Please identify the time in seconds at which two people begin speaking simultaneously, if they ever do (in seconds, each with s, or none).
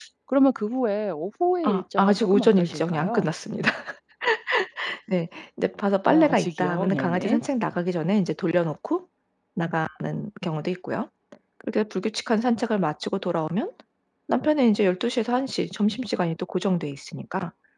1.6 s